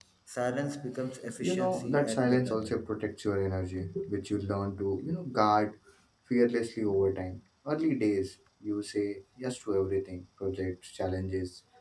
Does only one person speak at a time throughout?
No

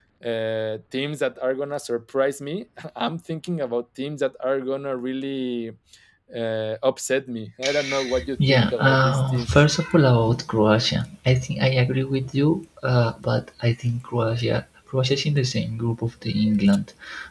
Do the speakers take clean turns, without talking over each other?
No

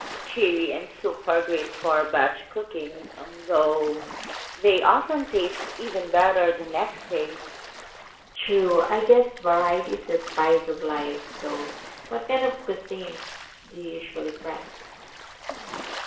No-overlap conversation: Yes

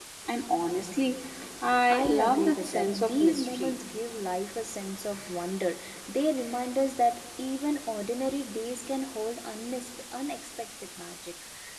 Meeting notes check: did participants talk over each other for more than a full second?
Yes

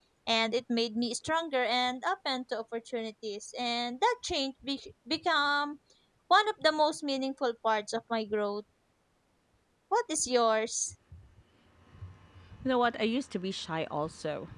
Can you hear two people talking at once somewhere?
No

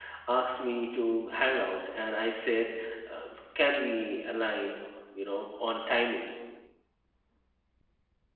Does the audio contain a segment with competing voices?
No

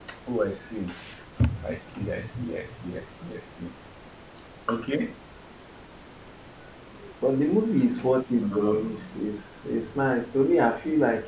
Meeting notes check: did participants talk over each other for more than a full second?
No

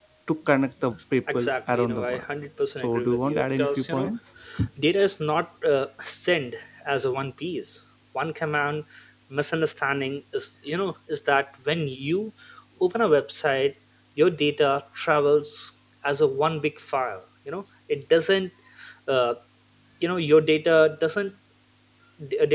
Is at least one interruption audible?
Yes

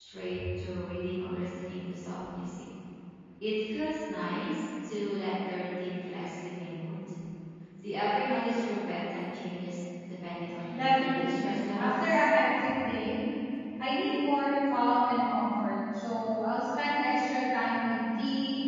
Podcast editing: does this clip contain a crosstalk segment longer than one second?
Yes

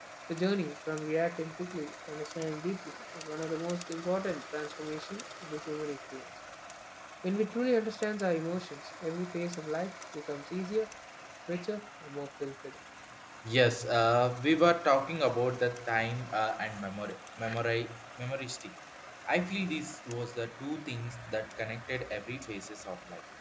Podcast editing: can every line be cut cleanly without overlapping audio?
Yes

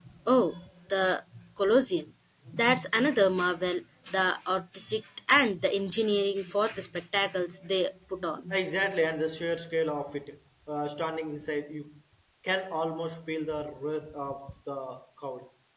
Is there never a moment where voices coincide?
Yes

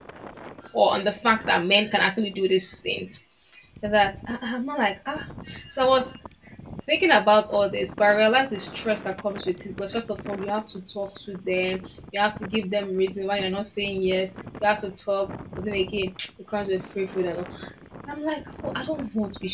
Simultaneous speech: No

